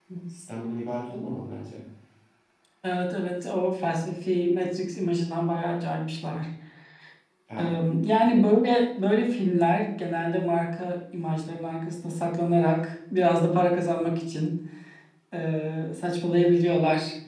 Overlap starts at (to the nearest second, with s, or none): none